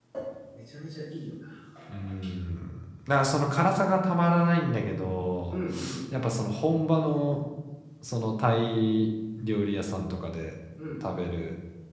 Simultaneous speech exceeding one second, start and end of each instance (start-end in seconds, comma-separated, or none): none